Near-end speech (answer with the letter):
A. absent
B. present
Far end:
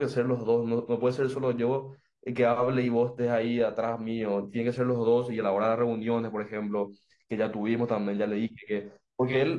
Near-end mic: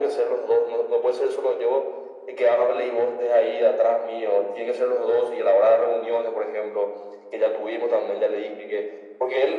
A